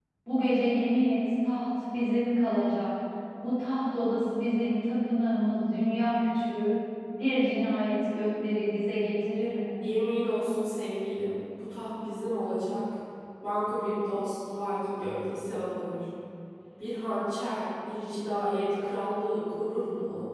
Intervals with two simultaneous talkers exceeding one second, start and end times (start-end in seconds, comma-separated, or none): none